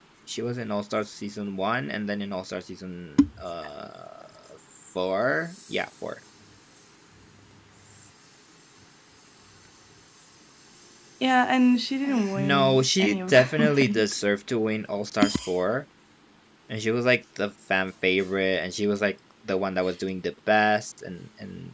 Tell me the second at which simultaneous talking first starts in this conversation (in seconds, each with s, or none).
12.3 s